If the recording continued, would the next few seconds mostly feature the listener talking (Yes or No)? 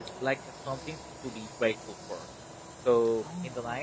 No